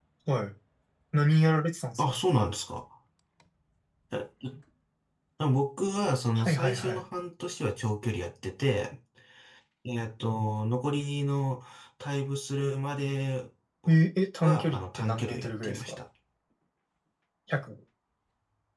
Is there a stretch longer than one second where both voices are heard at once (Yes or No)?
Yes